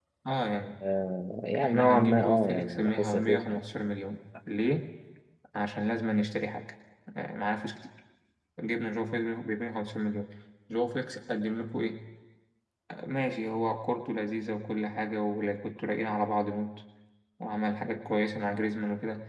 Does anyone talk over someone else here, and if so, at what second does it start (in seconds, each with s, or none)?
1.6 s